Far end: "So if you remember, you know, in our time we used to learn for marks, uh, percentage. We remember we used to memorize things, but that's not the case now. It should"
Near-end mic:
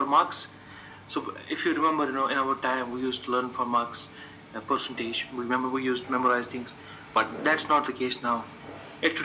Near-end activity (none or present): none